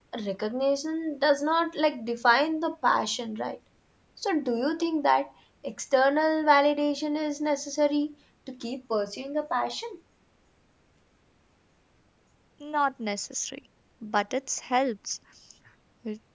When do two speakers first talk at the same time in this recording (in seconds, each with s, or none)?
none